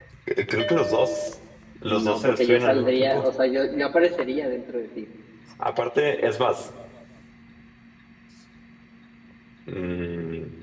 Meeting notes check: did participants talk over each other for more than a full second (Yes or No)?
Yes